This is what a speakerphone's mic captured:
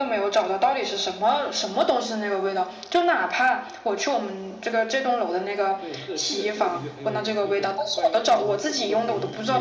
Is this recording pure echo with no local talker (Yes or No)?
No